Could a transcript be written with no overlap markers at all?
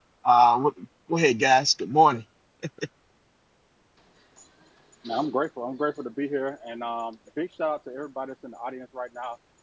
Yes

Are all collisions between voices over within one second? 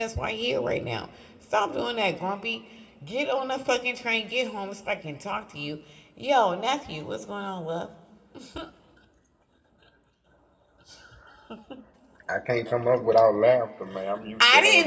Yes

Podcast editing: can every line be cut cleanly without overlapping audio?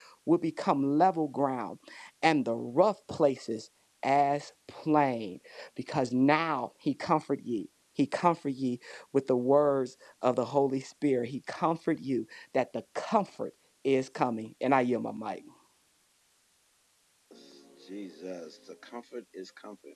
Yes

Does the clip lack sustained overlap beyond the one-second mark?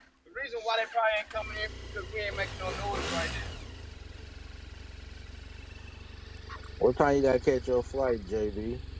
Yes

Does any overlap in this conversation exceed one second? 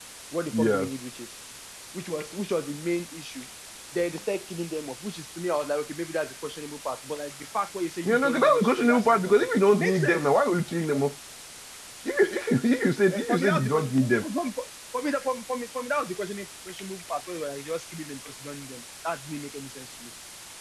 Yes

